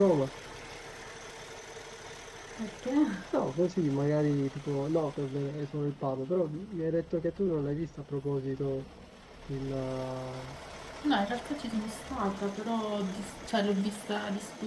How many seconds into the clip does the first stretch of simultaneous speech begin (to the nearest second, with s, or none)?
none